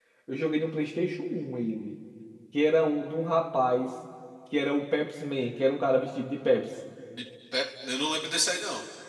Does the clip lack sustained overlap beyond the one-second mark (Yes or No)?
Yes